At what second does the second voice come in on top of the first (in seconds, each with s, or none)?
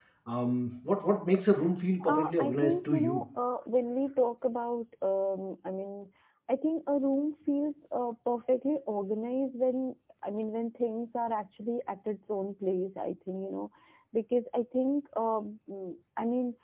2.0 s